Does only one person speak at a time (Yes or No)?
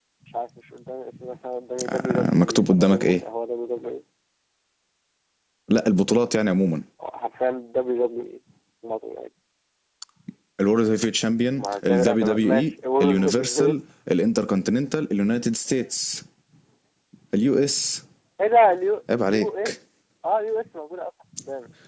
No